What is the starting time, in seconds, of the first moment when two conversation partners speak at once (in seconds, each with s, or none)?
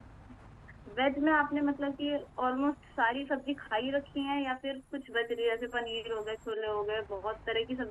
none